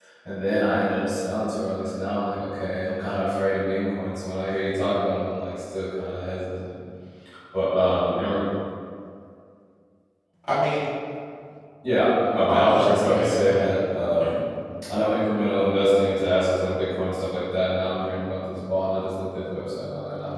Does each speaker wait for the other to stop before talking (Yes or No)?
No